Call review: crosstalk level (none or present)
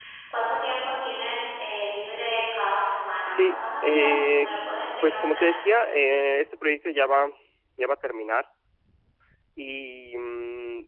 present